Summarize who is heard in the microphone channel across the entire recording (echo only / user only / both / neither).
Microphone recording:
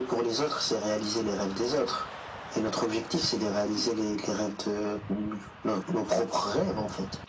echo only